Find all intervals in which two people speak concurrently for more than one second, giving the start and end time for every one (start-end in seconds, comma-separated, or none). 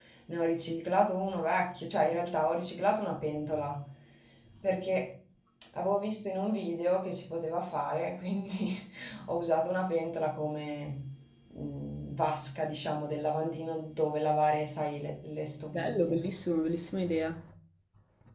none